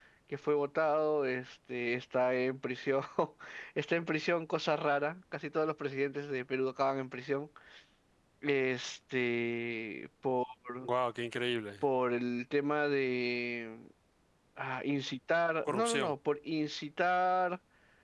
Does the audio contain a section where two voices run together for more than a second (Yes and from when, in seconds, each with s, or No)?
No